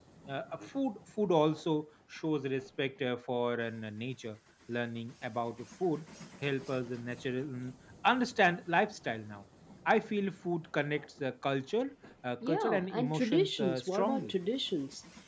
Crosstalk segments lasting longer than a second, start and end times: 12.5-14.3

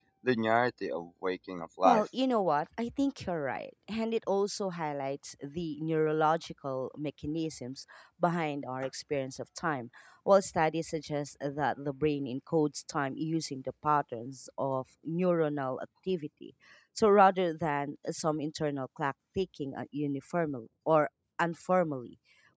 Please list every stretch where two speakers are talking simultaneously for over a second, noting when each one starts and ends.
none

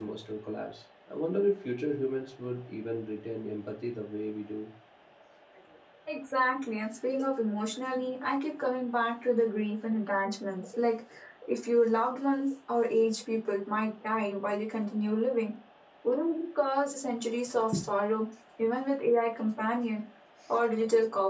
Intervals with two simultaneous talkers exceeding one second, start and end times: none

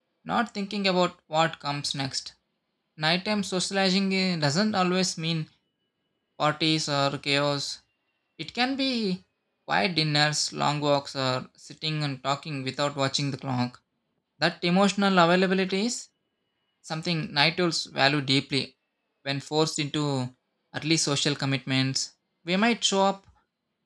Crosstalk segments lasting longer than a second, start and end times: none

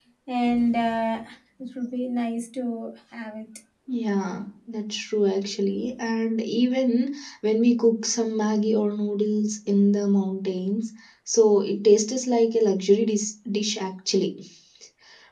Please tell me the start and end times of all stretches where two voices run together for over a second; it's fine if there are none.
none

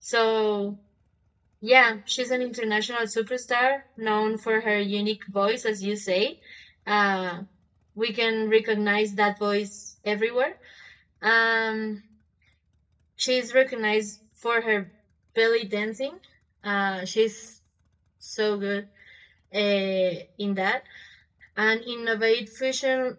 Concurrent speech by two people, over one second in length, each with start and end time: none

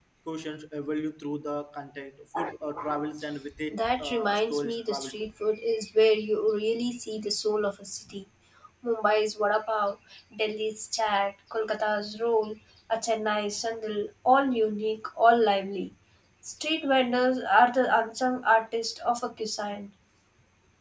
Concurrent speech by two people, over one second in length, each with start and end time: 3.7-5.3

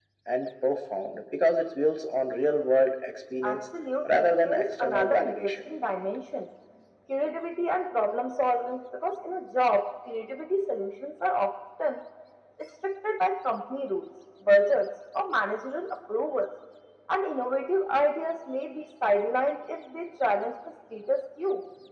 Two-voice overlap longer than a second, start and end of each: 4.1-5.5

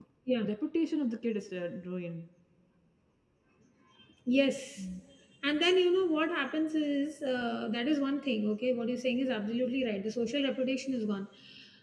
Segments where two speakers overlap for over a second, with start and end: none

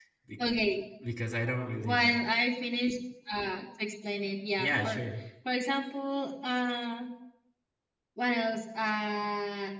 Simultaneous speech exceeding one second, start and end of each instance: none

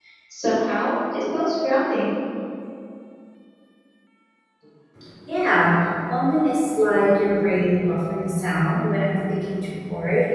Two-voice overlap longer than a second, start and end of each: none

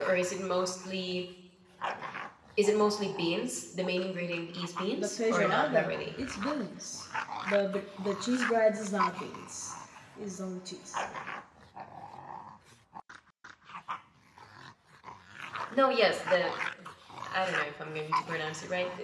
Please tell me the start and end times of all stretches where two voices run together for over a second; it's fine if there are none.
5.0-6.2

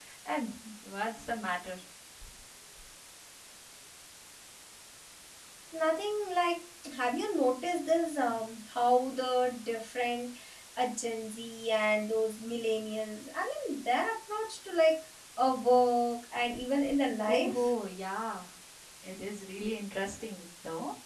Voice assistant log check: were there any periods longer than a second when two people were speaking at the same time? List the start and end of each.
none

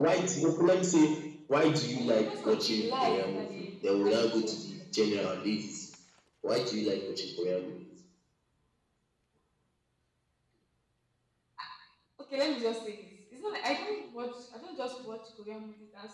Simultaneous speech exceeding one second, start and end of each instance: 2.0-3.6

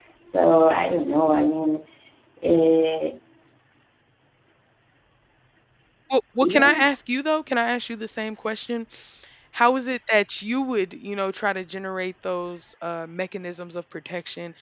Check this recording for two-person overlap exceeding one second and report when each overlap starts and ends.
none

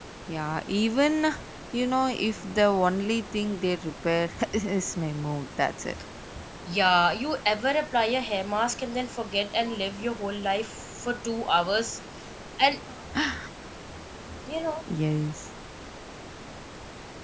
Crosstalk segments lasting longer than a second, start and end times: none

